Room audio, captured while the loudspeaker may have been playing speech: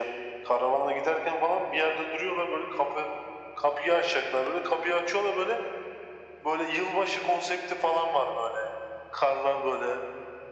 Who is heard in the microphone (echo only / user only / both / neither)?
echo only